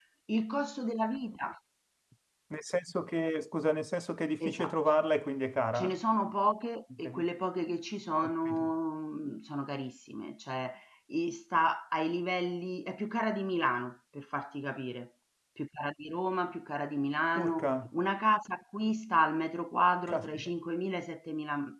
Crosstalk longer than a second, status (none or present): none